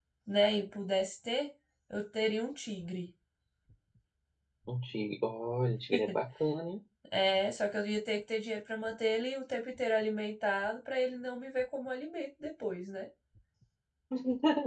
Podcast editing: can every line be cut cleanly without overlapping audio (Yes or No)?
Yes